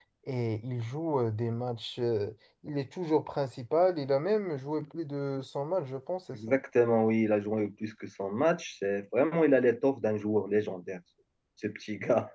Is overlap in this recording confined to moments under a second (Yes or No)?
Yes